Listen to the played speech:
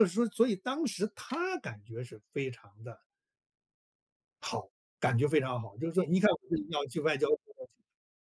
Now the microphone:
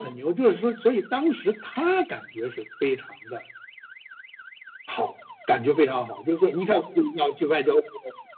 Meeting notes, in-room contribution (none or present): none